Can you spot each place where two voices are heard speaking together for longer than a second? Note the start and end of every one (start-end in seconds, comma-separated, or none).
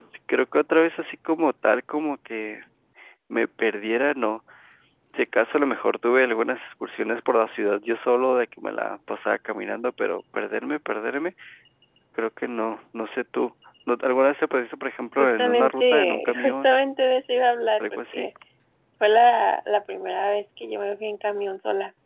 15.2-16.7